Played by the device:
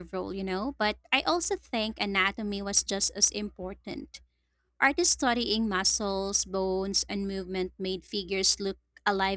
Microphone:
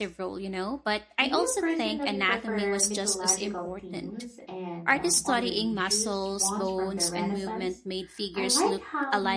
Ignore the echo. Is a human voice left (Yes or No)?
Yes